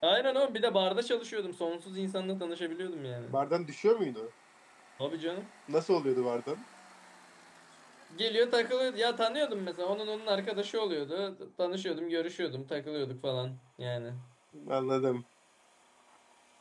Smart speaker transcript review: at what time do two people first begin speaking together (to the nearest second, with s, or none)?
none